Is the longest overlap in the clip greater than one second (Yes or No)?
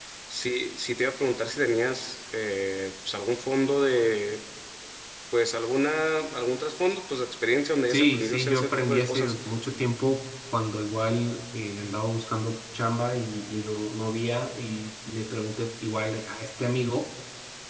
Yes